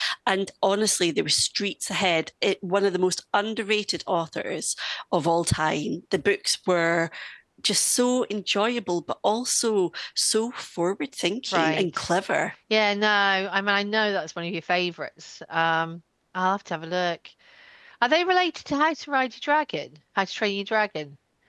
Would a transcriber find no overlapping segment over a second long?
Yes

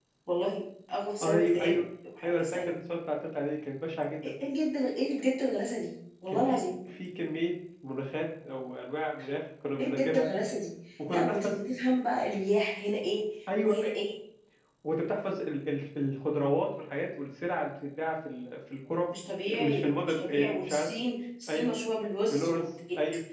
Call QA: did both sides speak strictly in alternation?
No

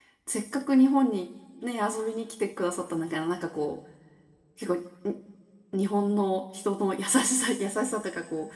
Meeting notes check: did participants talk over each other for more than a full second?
No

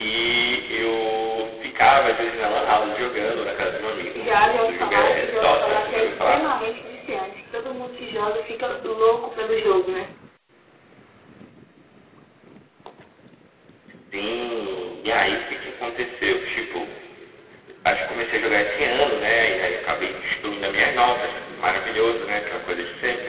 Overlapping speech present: Yes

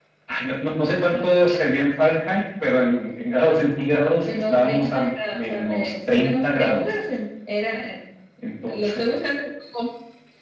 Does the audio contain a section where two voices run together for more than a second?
Yes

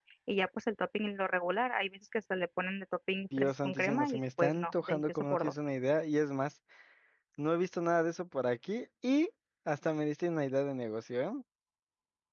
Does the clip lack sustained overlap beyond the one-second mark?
No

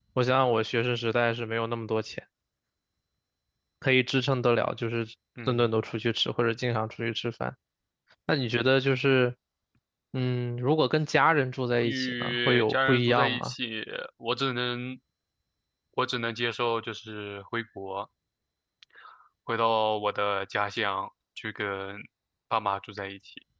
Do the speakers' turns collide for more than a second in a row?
Yes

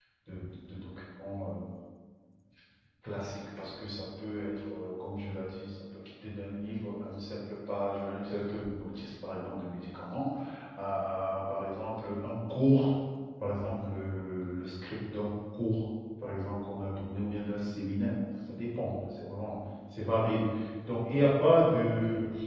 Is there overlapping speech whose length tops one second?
No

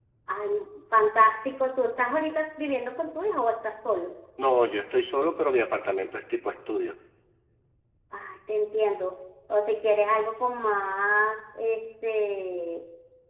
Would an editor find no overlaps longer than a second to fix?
Yes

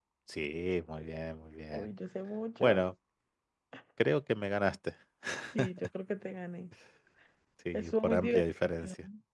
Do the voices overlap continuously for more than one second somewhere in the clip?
Yes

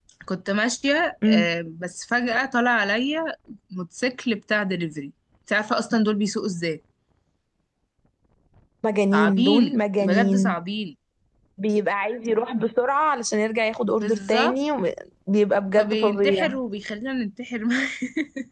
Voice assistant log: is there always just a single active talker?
No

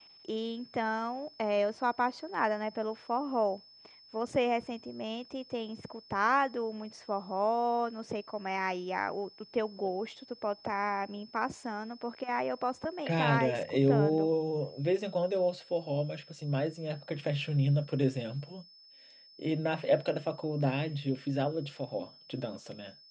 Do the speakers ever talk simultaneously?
Yes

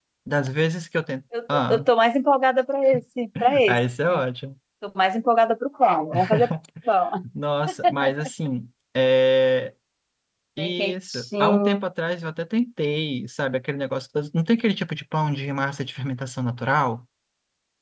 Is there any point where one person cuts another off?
Yes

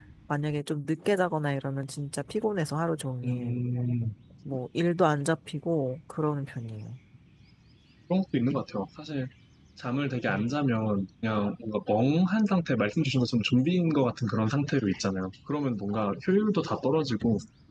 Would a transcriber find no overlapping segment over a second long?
Yes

